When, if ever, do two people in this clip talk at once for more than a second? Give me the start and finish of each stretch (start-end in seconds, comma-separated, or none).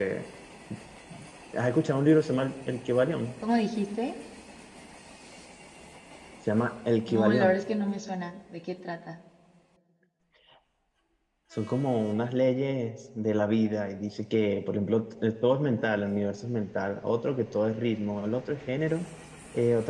none